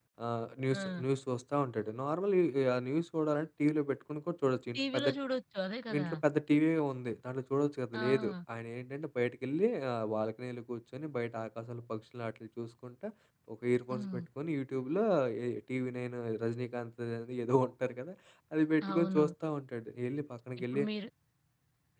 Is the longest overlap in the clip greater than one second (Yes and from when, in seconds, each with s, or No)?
No